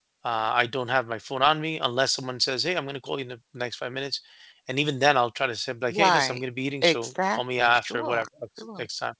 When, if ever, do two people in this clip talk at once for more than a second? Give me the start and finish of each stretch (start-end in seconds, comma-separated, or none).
6.8-8.2